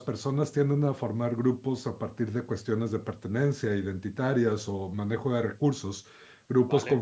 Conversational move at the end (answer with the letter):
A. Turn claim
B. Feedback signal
B